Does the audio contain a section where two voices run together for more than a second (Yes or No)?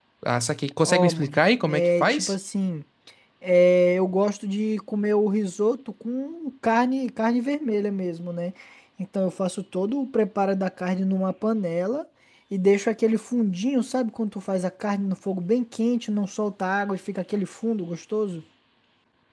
Yes